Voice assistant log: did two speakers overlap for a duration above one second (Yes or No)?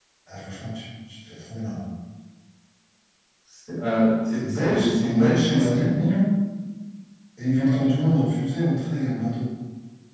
Yes